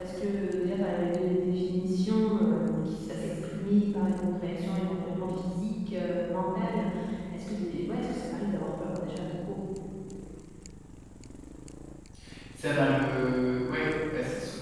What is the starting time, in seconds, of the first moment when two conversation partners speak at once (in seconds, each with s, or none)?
none